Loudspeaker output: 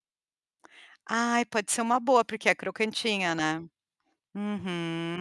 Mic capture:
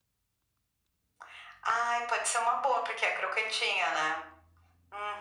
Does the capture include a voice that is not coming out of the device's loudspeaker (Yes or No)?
No